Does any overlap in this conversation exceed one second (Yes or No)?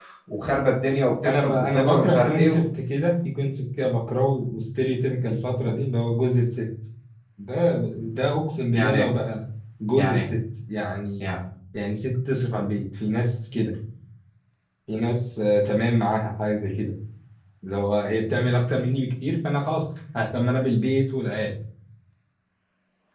Yes